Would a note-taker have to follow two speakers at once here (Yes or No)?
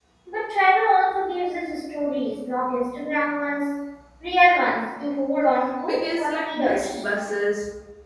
Yes